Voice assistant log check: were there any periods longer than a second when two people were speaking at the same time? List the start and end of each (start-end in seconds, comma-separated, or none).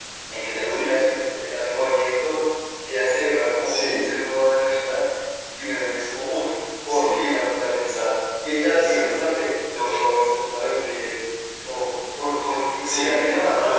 none